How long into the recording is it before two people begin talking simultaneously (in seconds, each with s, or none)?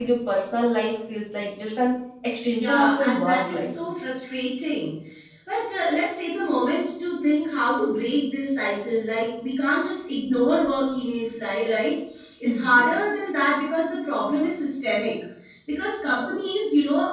2.5 s